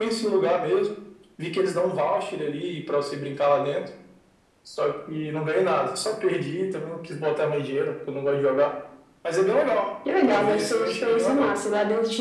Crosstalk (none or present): present